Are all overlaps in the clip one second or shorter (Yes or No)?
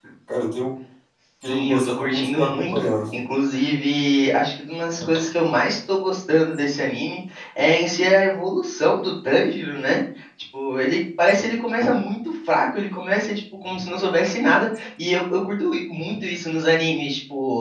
No